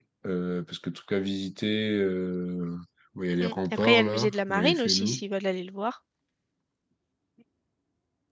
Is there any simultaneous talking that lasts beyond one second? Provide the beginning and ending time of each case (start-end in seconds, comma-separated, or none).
3.4-5.2